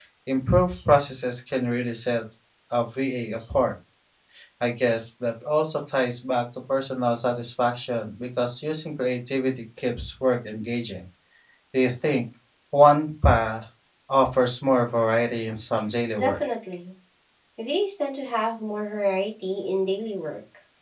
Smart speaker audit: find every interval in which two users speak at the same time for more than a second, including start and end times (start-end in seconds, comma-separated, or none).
none